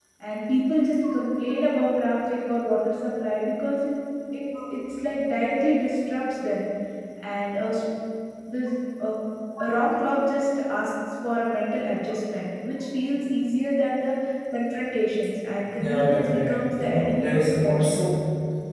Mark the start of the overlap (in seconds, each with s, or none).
15.8 s